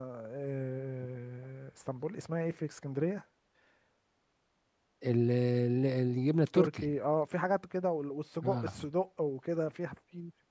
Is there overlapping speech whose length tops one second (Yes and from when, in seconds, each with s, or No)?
No